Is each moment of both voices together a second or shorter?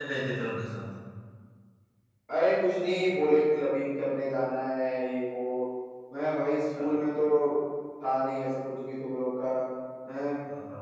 Yes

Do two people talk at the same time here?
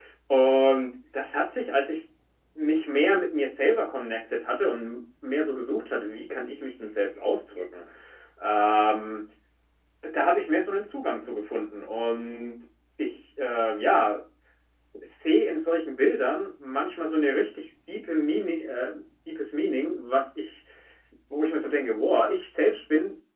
No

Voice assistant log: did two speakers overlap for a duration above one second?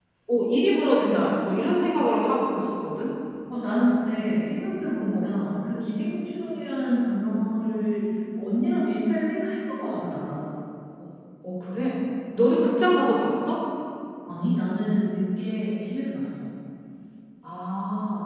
No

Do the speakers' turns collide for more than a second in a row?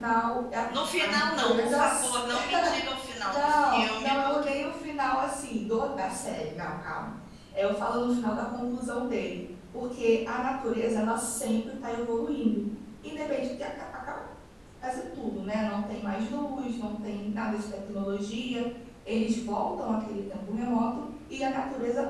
Yes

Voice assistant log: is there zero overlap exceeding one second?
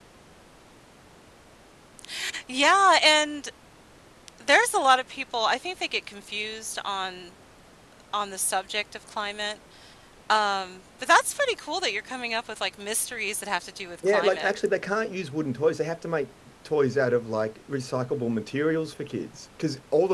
Yes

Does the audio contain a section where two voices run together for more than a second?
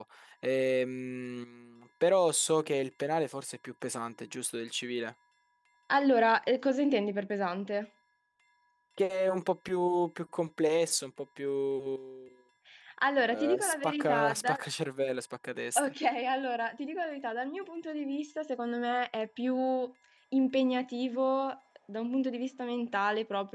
Yes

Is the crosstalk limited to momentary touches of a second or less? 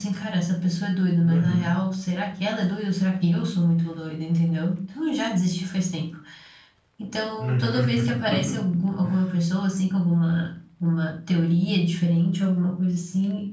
No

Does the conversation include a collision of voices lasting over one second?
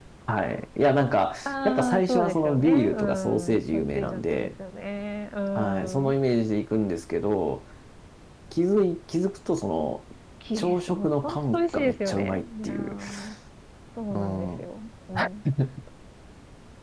Yes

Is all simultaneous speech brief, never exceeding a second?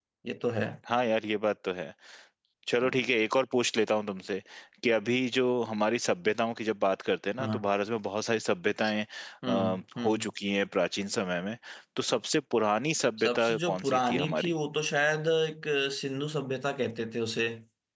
No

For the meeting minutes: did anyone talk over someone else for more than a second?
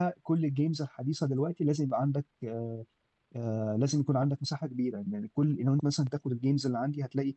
No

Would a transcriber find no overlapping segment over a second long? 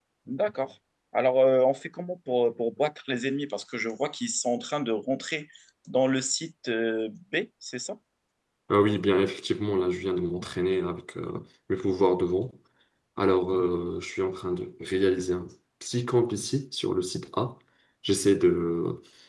Yes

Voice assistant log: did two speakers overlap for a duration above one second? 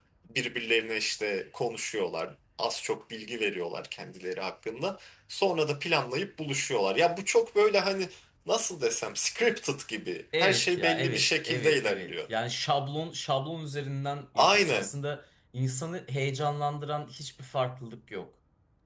Yes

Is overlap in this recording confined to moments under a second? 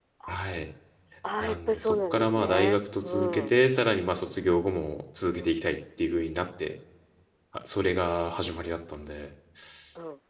No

